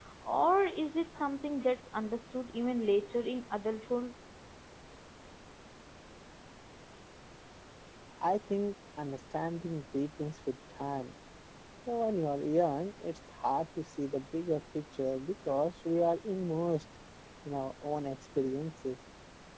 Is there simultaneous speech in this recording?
No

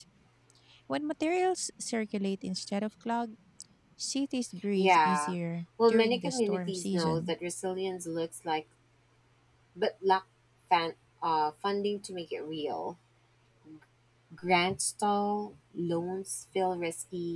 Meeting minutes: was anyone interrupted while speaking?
Yes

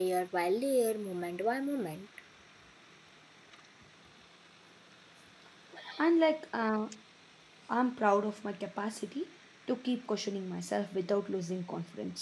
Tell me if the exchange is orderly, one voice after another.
Yes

